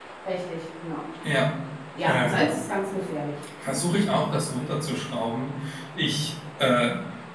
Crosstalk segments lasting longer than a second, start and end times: none

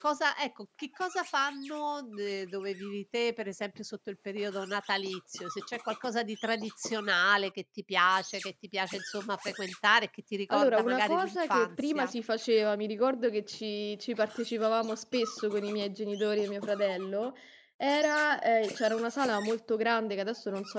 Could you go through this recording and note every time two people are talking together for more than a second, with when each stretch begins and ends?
10.5-12.1

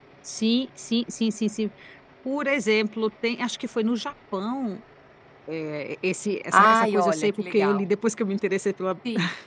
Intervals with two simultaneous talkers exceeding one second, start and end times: 6.5-7.9

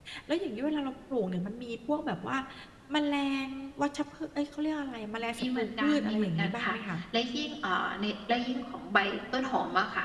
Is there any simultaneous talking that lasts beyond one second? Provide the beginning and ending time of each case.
5.4-6.7

